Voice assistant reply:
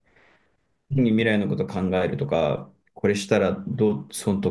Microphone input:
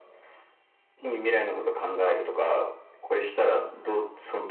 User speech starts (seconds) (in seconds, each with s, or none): none